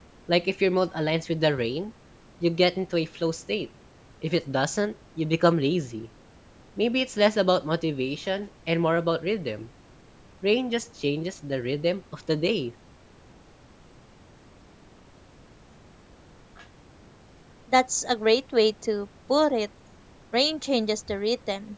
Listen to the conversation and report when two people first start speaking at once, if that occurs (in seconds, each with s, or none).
none